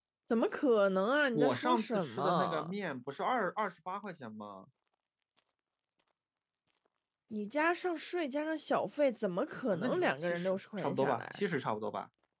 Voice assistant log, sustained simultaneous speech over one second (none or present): present